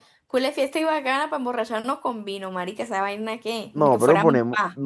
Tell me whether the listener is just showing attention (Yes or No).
No